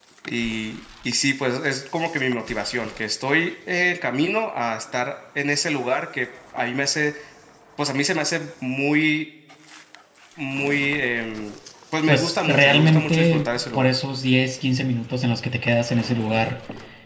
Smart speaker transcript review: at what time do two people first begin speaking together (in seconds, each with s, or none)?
12.1 s